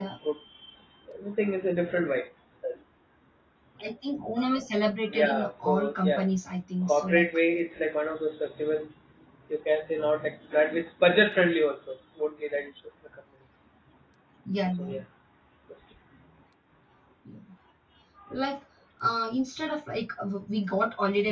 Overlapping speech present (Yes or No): Yes